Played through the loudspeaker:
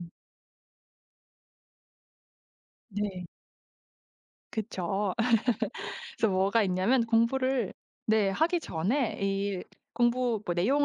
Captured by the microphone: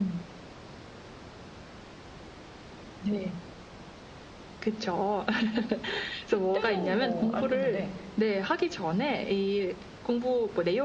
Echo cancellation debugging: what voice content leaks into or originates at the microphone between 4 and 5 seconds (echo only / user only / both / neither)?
echo only